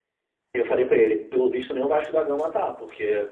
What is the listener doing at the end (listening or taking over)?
listening